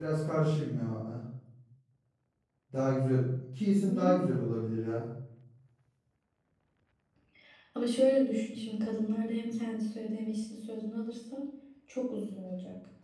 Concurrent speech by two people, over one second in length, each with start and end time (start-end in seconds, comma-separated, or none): none